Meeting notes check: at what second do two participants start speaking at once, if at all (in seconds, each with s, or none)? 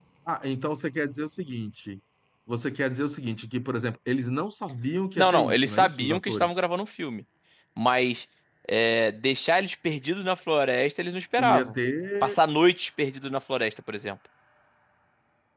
5.2 s